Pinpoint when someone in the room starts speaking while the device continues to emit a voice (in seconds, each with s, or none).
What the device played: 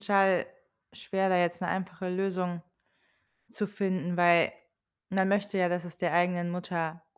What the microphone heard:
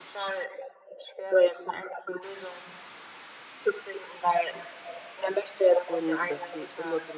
5.8 s